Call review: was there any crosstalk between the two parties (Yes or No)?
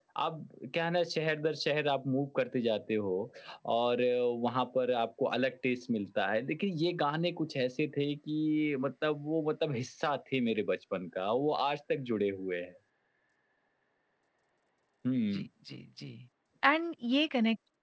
No